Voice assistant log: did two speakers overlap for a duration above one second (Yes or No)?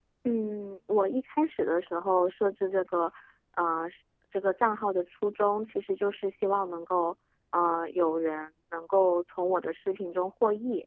No